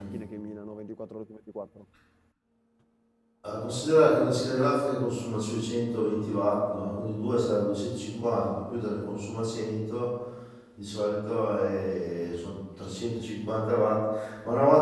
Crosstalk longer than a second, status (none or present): none